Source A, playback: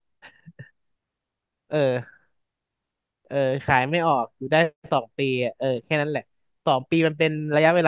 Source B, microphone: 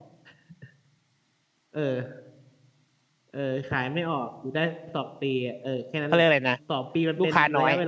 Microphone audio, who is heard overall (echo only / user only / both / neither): both